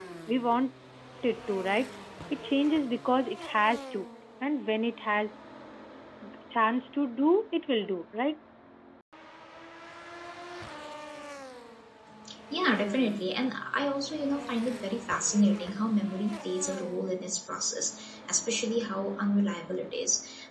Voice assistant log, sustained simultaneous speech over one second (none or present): none